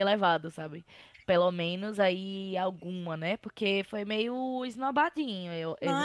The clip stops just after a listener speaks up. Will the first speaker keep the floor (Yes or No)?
No